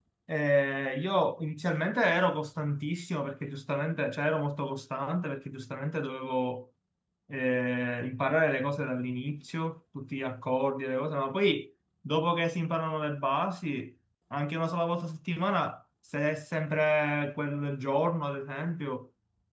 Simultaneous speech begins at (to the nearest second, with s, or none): none